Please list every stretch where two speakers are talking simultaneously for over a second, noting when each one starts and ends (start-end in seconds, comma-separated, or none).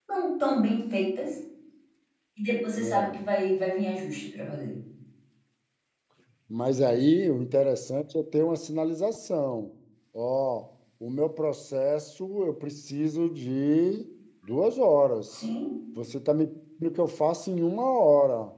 none